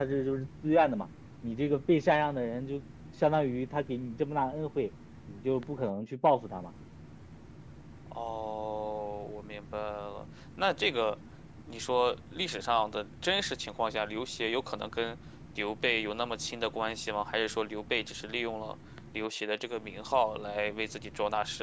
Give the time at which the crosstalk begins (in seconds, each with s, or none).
none